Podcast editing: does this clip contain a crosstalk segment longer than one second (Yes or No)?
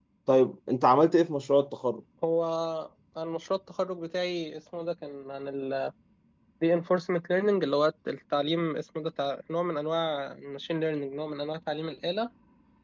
No